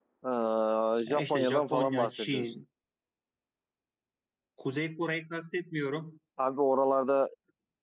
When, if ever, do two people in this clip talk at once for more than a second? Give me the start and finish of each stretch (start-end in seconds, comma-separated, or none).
1.1-2.6